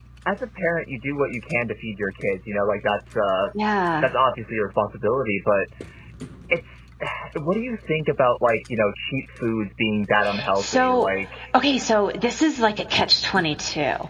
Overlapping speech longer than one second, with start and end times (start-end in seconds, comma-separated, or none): none